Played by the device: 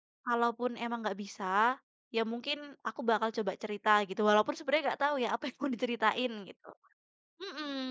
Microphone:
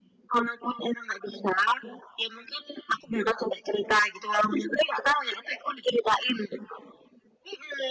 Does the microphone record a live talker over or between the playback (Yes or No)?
No